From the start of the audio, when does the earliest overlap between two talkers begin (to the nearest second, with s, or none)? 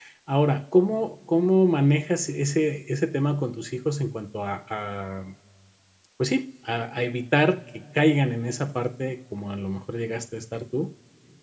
none